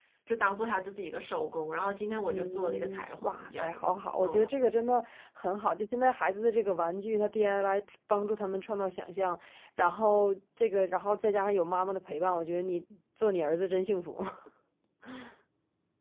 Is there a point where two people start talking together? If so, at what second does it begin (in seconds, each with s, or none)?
2.3 s